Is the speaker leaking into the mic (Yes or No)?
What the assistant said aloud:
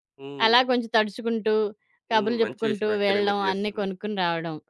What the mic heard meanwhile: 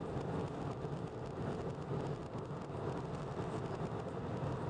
No